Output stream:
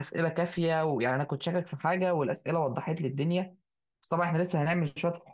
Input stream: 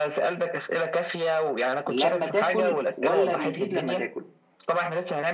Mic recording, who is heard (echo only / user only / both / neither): both